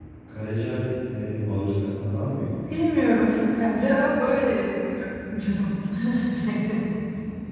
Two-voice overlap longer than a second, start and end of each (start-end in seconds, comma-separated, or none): none